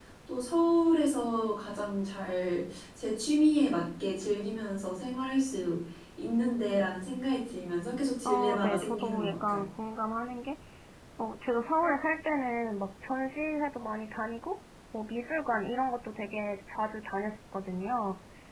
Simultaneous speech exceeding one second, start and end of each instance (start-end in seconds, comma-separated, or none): 8.2-9.7